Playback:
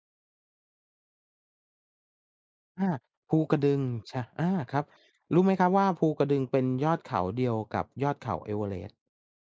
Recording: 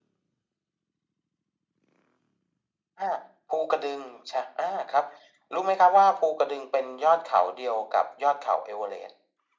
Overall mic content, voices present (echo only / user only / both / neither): echo only